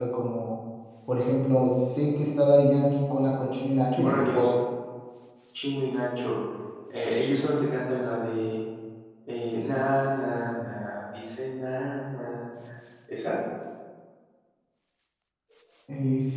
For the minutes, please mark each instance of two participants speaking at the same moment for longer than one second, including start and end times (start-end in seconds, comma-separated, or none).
none